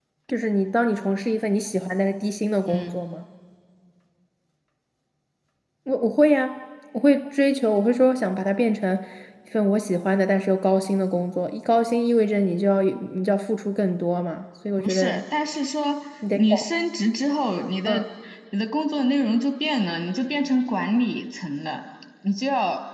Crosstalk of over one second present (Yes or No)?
No